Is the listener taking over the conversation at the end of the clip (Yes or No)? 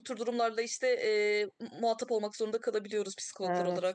Yes